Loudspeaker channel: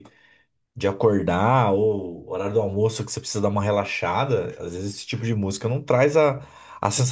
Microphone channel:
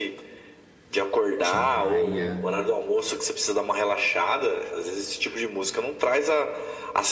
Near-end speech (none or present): present